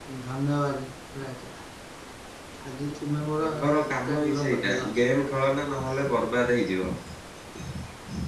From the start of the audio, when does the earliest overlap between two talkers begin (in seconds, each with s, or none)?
3.4 s